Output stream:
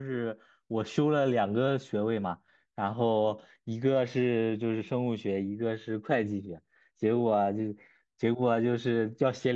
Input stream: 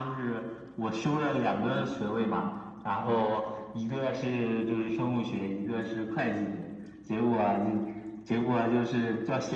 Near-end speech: none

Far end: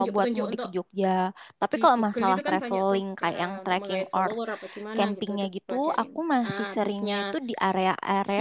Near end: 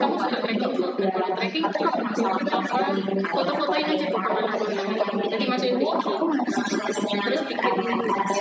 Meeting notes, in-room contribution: present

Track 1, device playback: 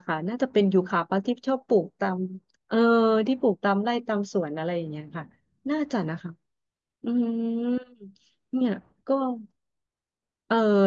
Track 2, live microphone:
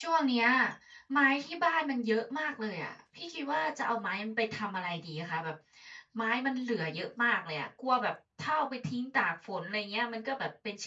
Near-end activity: present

